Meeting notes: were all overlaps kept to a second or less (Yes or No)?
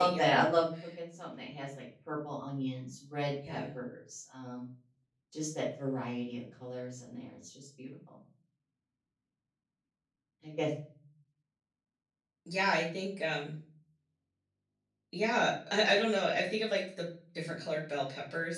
Yes